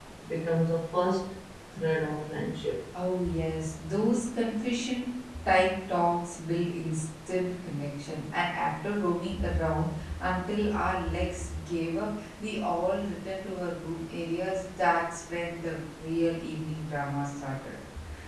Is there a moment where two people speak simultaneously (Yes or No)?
No